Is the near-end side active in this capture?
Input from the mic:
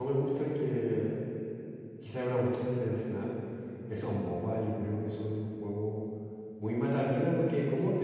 Yes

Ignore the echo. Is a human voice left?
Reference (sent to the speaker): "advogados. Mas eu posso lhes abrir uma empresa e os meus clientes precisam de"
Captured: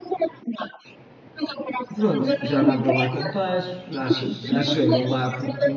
Yes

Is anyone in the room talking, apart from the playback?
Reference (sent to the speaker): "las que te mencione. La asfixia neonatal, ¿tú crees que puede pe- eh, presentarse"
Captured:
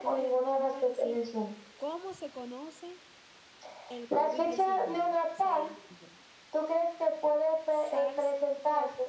Yes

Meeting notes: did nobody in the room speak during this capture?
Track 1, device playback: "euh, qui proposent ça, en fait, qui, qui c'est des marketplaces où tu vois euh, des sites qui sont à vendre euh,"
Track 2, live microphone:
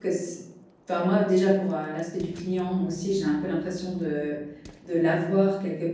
No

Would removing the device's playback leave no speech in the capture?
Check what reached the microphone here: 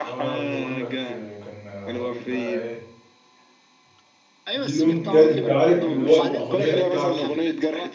No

